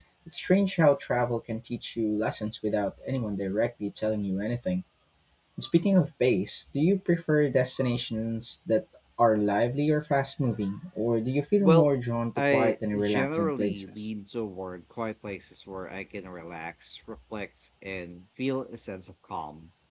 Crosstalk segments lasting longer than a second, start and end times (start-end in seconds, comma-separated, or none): 12.4-14.1